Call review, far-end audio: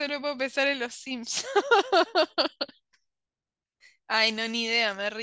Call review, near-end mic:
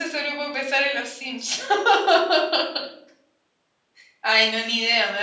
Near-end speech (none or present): none